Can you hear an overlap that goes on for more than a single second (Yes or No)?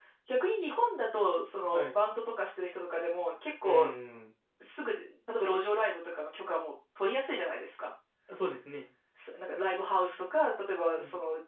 No